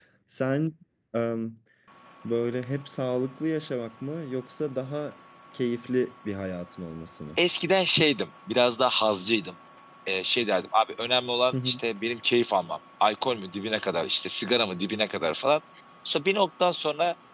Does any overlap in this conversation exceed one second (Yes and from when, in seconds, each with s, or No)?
No